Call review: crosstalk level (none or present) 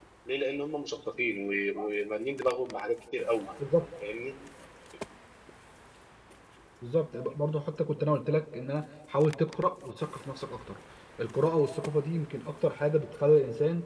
none